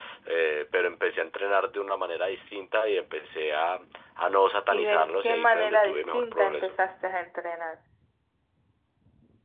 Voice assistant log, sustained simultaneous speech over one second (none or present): present